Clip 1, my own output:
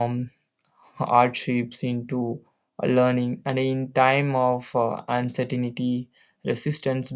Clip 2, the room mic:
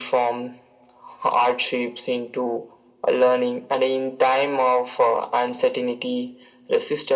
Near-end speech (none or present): none